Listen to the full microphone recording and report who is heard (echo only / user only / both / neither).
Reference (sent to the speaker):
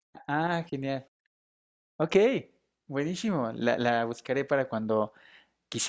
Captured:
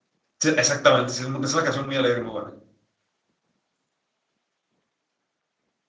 user only